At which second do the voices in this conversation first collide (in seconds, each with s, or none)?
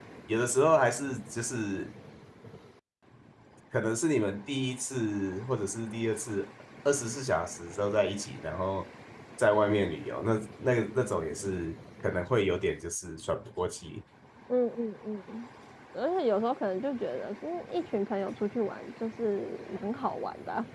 none